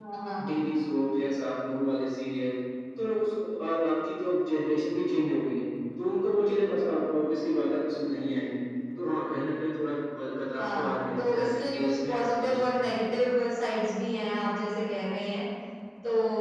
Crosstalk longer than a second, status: present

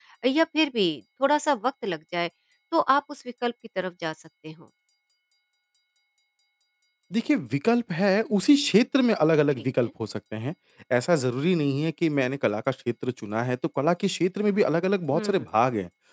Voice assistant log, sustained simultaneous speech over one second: none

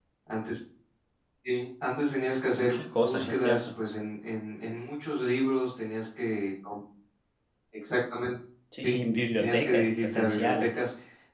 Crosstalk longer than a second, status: present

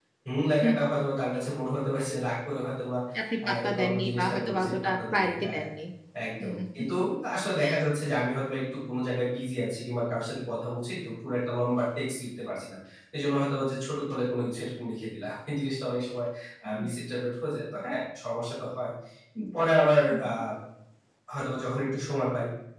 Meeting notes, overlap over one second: present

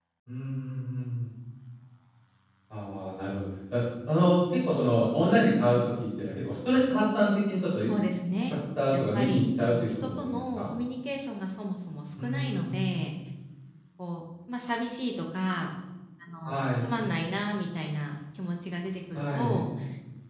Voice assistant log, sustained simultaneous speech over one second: present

